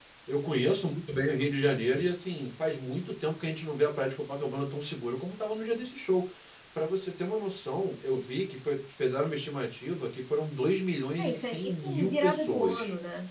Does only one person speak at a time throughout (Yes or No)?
No